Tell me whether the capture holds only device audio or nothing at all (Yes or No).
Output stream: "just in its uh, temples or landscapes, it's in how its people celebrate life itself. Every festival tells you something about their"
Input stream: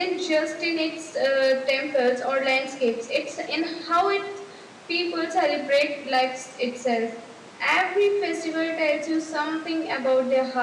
Yes